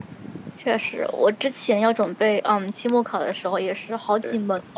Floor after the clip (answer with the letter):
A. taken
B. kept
B